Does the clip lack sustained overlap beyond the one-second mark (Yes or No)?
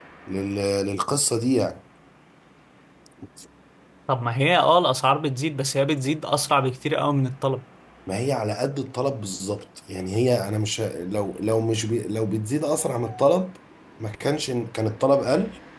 Yes